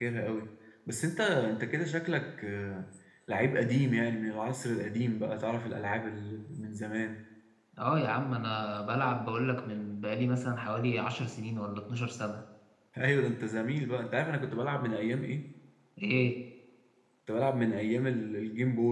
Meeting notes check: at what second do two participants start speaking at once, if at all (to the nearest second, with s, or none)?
none